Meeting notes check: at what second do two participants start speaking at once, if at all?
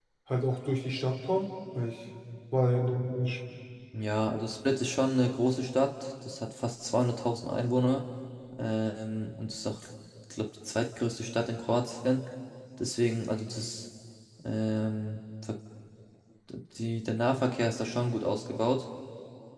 none

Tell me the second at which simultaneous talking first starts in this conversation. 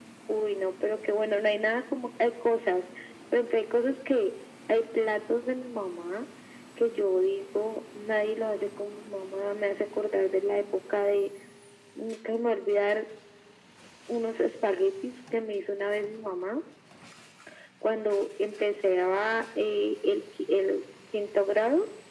none

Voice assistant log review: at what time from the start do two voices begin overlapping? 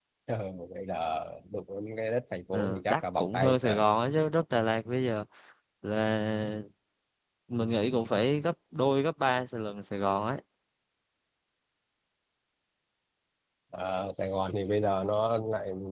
2.5 s

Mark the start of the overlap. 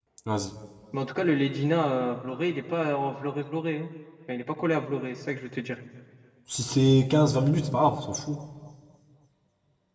none

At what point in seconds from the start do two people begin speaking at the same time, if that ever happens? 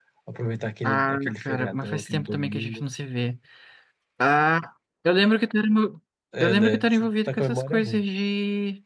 0.8 s

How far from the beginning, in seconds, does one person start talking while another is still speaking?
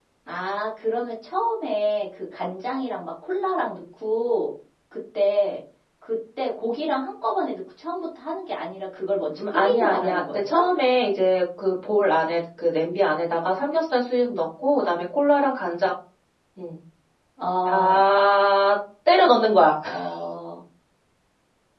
9.4 s

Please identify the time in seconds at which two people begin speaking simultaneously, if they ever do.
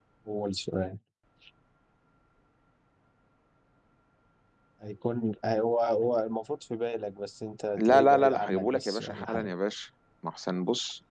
7.8 s

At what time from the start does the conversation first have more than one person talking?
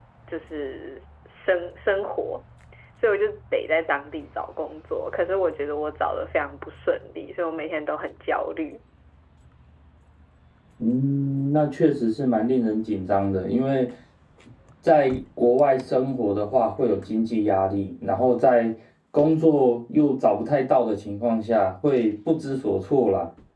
none

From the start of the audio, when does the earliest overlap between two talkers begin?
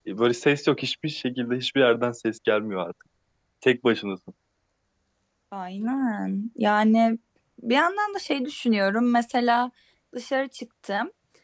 none

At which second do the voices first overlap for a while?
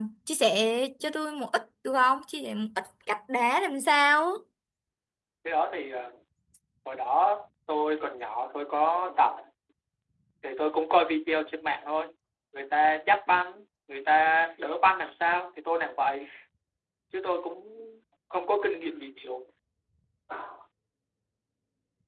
none

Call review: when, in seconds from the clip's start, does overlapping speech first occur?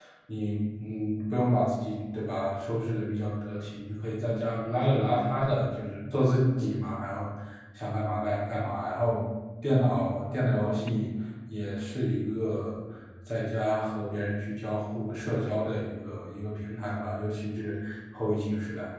none

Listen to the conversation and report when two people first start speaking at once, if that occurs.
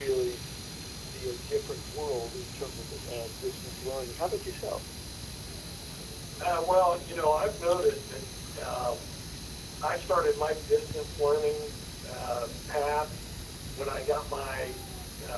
none

